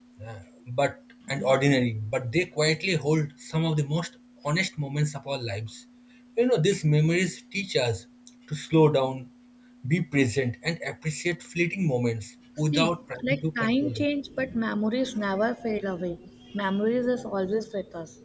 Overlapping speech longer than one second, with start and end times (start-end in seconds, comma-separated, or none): 12.7-14.1